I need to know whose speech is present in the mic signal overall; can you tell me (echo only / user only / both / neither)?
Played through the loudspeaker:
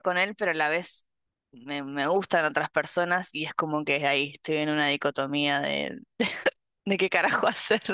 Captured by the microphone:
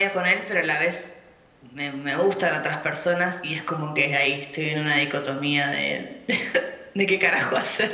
echo only